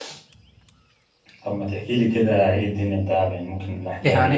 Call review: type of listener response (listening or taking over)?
taking over